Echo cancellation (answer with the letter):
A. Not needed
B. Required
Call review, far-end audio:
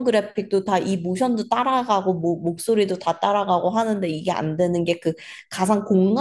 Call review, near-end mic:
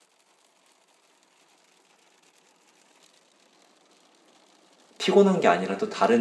A